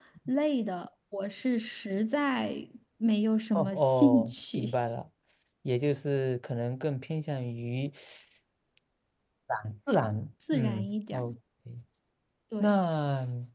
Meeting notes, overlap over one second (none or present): present